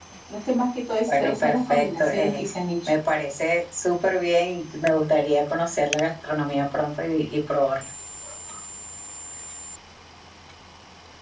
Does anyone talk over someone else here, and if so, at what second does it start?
1.1 s

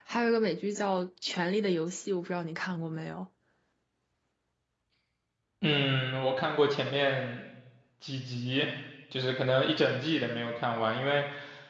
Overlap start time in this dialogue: none

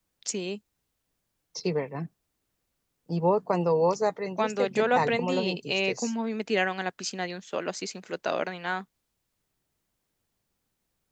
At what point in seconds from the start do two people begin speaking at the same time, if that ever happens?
4.4 s

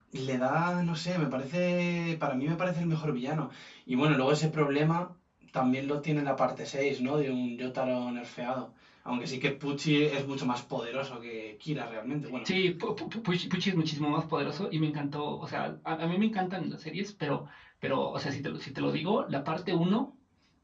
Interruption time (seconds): none

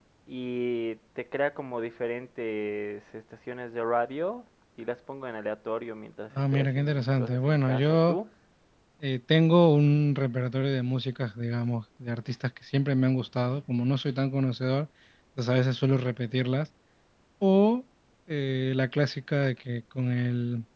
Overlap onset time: 6.4 s

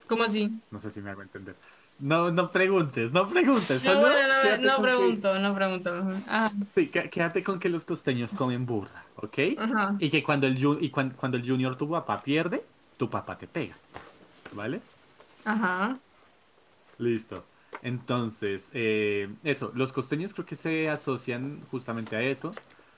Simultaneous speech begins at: 3.8 s

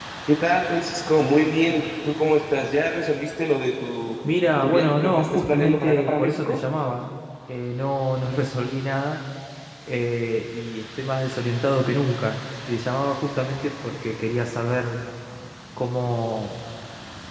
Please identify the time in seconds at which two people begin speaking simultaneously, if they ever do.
4.6 s

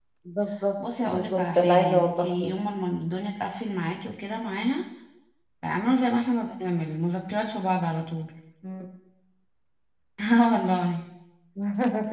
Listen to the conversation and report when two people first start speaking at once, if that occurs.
1.0 s

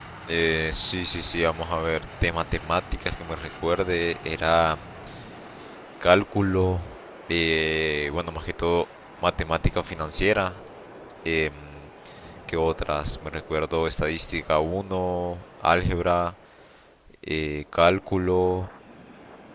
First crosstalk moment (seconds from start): none

